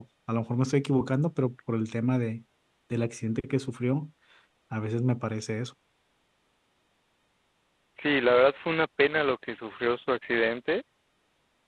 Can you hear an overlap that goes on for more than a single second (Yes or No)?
No